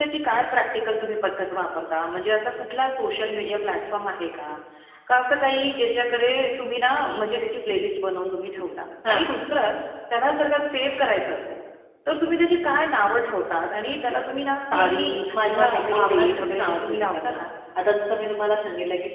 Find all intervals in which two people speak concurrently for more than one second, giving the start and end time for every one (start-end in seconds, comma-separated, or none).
14.7-17.4